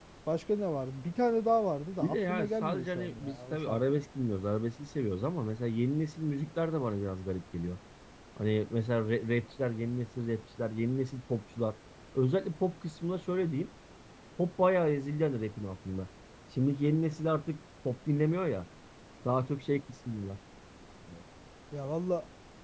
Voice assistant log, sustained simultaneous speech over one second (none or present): present